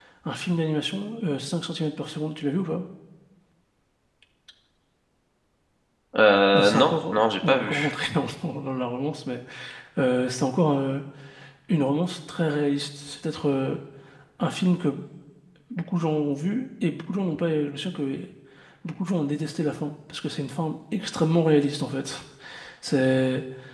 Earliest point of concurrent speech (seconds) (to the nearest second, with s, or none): 7 s